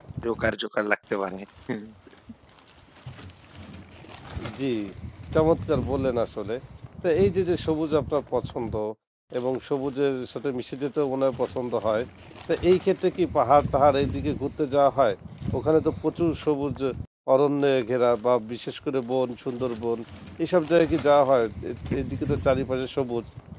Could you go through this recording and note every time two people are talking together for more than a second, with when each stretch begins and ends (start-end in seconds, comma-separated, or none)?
none